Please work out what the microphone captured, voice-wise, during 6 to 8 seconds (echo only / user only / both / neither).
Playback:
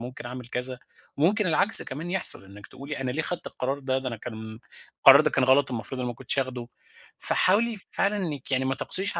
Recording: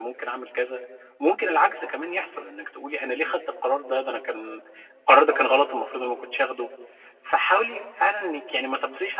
echo only